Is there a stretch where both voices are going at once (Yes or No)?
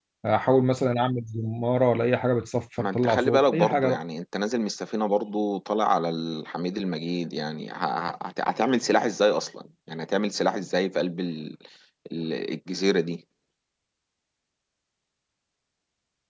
Yes